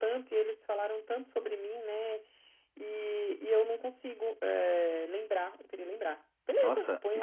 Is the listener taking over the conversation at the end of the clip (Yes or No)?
Yes